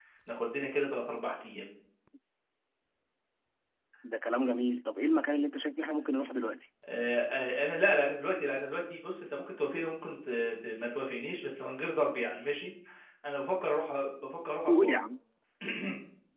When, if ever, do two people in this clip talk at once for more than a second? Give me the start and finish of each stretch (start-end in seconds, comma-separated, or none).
none